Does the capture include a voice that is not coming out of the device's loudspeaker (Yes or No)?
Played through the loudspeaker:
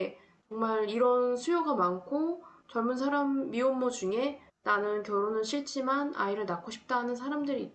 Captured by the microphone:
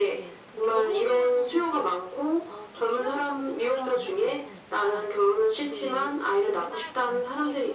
Yes